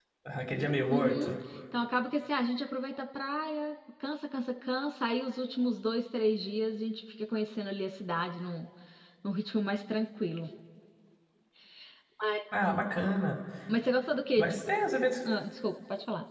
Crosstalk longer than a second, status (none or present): none